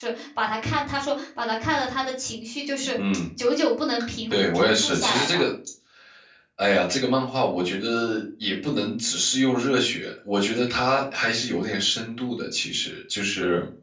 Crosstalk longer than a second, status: present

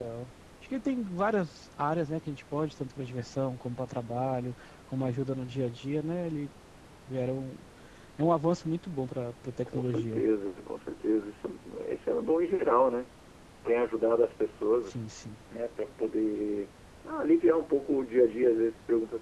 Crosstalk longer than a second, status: none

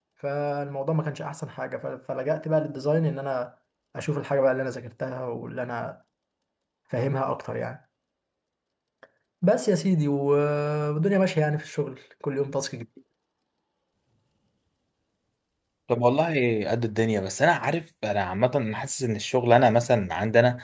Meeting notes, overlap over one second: none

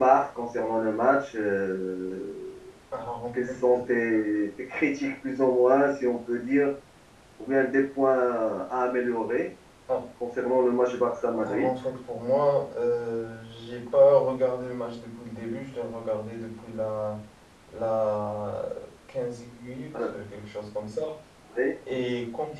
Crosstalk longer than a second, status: none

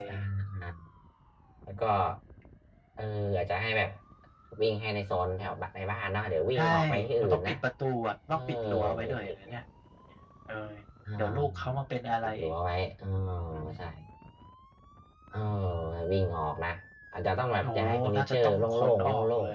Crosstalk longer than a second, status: present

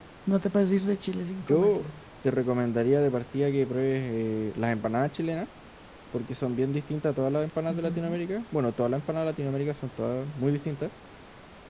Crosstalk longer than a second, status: none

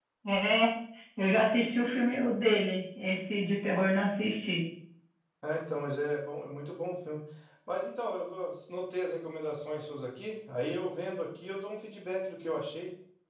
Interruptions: none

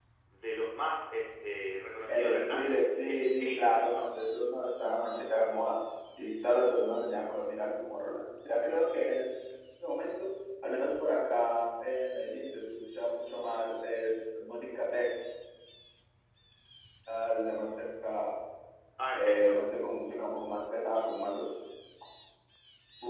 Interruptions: present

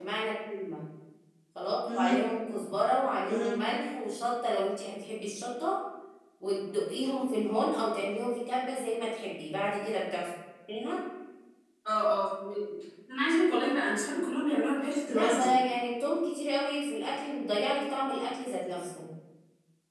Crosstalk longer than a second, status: none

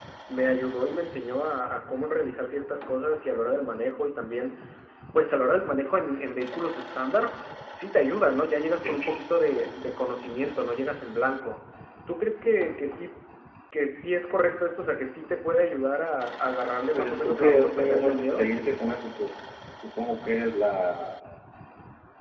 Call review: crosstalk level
present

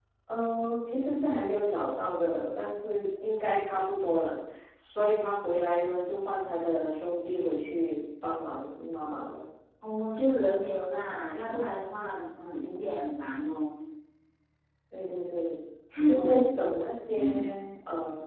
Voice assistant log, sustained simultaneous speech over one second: none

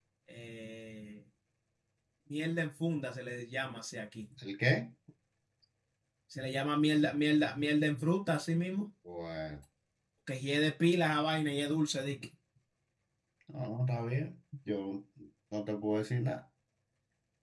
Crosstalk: none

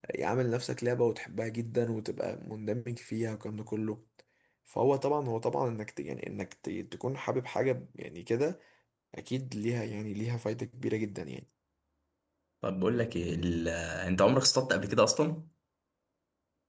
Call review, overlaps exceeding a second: none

